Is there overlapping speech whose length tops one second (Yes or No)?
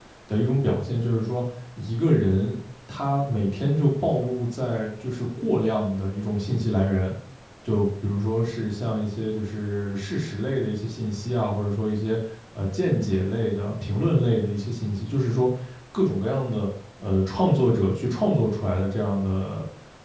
No